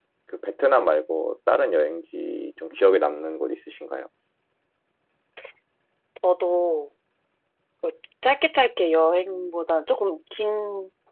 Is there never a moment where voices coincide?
Yes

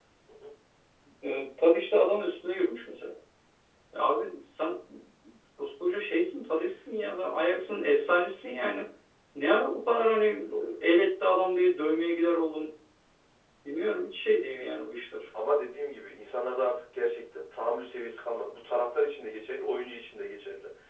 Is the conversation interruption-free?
Yes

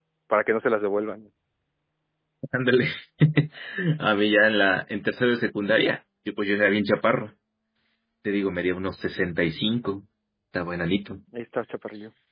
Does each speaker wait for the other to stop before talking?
Yes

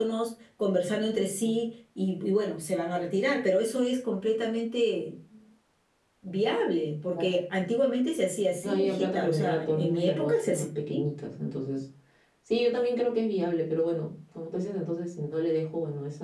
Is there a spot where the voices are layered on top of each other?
Yes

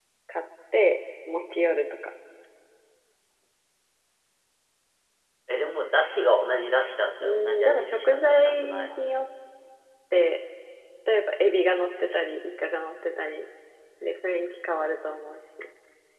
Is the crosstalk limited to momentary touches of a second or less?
No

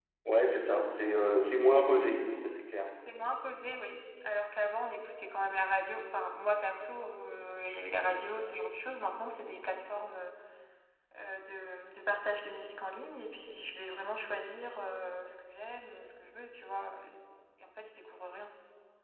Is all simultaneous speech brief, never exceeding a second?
Yes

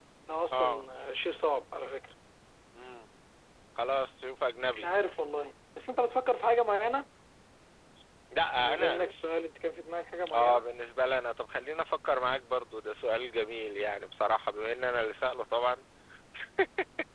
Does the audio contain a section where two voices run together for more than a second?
No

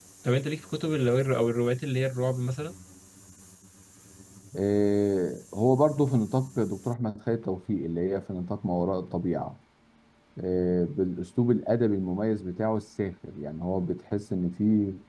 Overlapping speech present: No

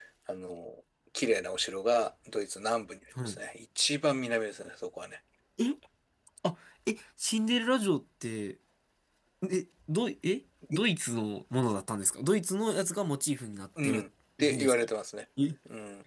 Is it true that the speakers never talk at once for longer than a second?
Yes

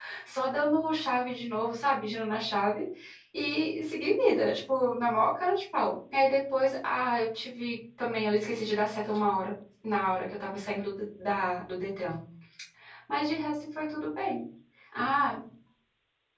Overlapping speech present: No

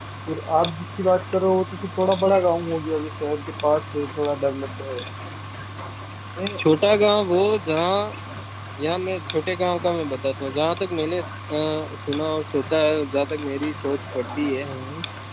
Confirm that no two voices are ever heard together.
Yes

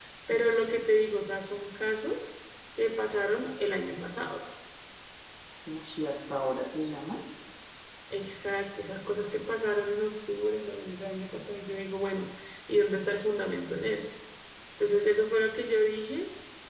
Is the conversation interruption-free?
Yes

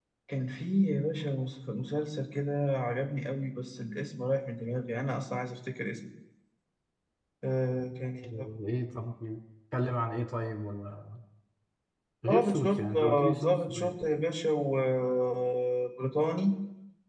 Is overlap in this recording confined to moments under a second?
No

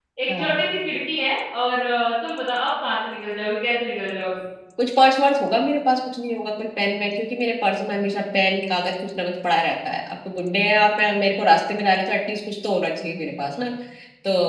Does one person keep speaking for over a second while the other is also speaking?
No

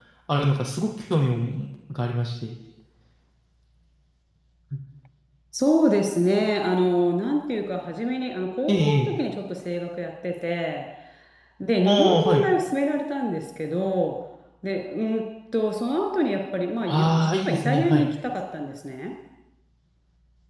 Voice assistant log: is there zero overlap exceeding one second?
No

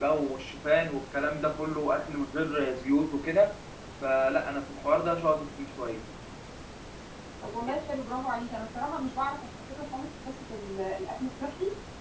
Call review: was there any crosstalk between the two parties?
No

